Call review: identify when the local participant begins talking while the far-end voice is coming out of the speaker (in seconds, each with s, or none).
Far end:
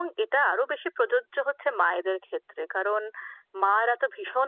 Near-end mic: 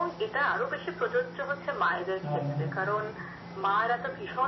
2.2 s